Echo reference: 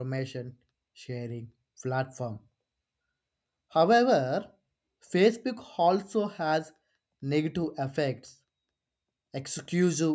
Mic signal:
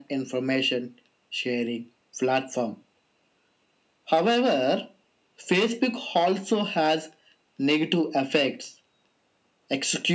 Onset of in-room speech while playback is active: none

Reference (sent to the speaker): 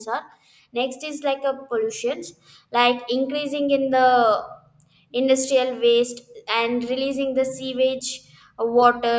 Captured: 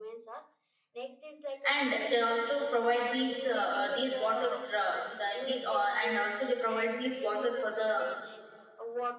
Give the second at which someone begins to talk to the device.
1.6 s

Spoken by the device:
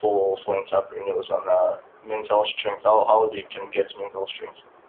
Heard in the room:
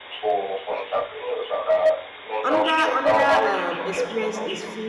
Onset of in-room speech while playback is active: 2.4 s

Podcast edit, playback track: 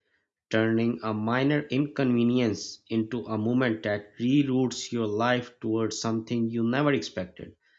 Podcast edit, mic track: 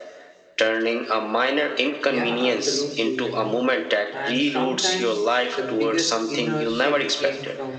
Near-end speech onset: 2.1 s

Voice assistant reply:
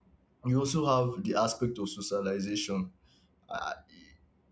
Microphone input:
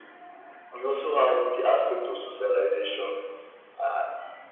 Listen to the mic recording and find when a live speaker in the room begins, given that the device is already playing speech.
none

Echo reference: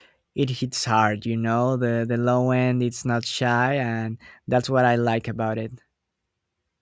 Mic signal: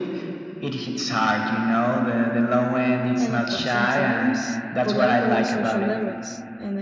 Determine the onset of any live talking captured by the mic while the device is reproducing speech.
3.2 s

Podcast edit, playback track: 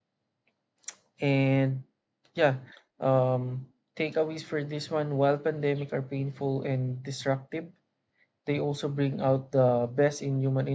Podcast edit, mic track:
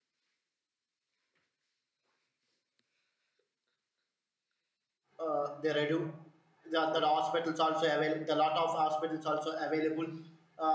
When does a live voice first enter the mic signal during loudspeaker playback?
5.2 s

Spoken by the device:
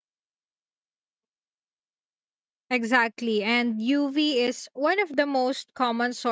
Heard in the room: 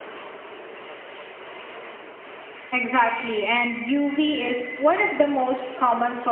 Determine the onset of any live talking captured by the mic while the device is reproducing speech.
none

